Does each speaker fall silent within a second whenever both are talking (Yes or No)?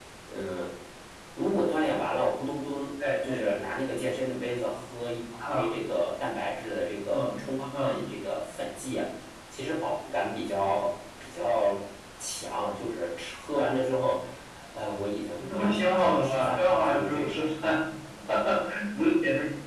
No